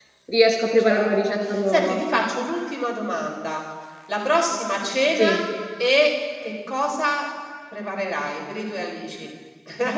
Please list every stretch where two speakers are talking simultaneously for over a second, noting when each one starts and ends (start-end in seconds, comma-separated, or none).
0.8-2.0